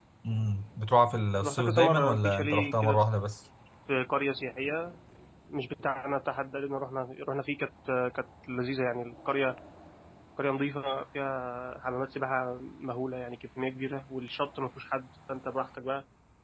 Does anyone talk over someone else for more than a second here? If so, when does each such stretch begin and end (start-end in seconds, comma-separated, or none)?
1.4-3.0